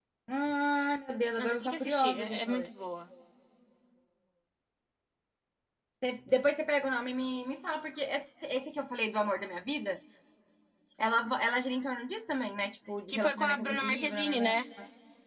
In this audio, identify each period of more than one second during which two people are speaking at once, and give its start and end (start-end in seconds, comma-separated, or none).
1.4-2.7, 13.1-14.5